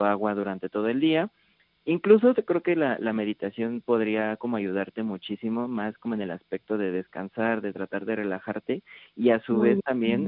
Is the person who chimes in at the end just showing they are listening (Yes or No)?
Yes